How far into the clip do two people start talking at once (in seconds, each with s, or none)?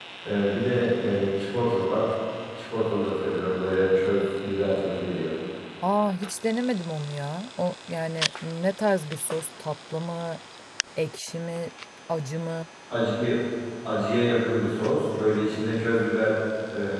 none